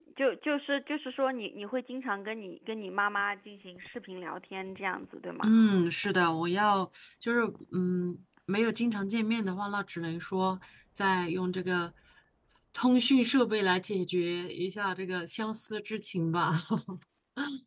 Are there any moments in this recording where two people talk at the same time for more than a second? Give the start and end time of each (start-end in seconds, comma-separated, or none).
none